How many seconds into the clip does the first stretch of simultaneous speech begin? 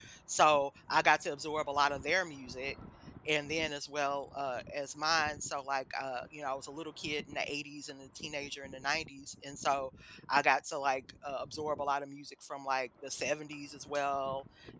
none

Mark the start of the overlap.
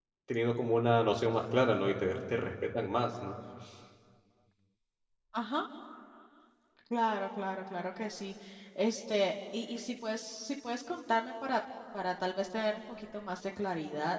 none

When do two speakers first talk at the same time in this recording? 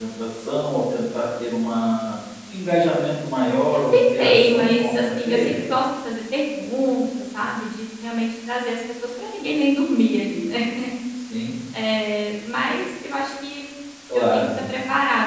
4 s

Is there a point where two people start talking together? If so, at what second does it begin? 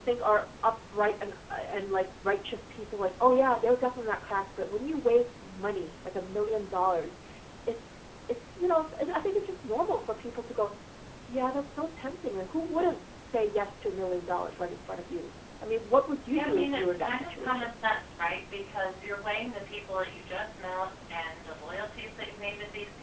16 s

